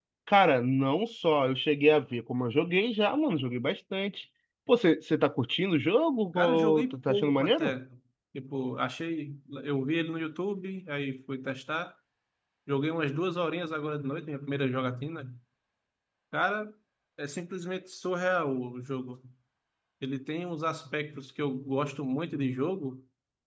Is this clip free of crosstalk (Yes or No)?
No